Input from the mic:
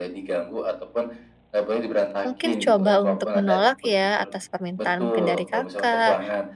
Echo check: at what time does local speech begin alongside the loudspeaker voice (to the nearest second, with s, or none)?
2 s